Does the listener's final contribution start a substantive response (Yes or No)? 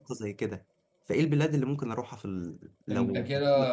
Yes